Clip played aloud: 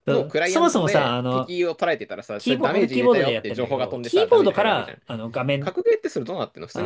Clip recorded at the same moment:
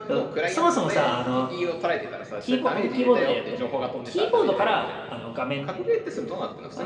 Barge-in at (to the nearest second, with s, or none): none